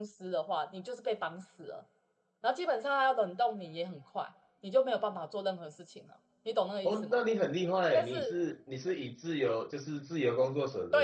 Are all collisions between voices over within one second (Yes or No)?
Yes